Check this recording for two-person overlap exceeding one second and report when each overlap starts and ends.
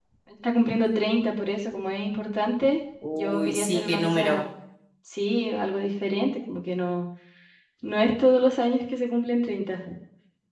3.1-4.5

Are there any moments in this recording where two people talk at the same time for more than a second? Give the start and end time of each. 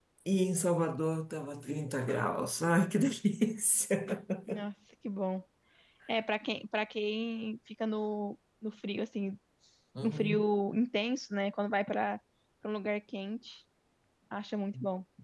none

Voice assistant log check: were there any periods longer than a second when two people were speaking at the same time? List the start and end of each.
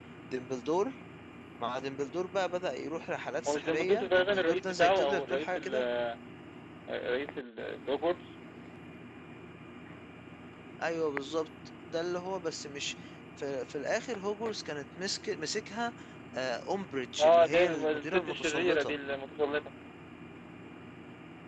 3.5-5.7, 17.2-18.9

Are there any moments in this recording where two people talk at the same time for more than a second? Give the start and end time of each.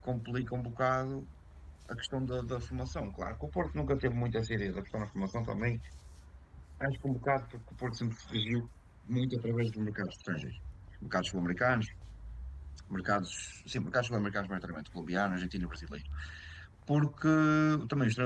none

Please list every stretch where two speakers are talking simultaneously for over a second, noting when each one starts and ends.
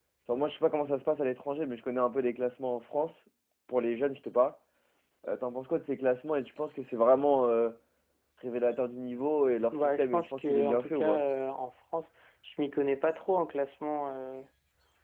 9.7-11.2

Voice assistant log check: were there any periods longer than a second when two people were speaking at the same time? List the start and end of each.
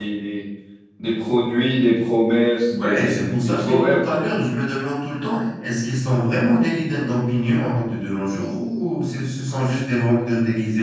2.8-4.2

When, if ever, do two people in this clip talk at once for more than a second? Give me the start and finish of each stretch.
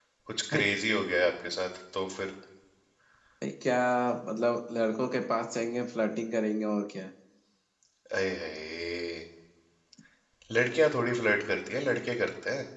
none

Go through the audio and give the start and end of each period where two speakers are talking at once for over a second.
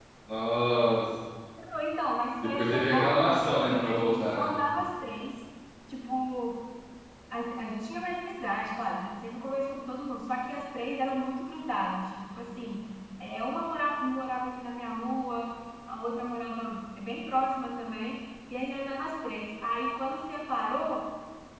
2.5-4.5

